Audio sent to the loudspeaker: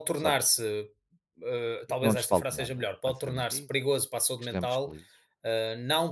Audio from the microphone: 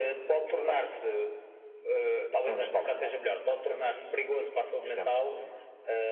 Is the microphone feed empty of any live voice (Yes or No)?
Yes